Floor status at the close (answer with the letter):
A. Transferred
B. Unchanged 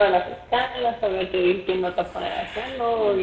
B